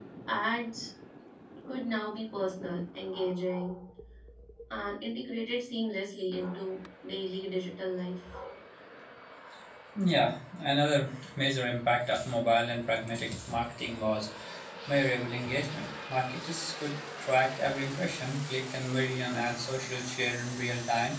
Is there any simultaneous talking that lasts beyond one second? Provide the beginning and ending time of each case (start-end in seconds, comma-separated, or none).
none